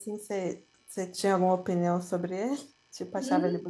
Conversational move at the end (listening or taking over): taking over